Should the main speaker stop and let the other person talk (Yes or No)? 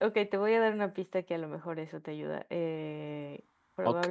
Yes